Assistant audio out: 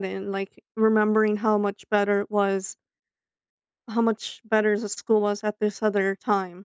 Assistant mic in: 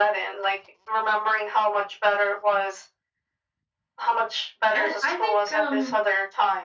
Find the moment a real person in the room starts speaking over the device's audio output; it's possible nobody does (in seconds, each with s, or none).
4.7 s